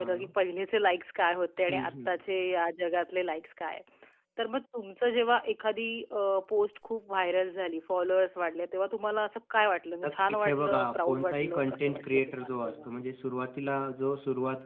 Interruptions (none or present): present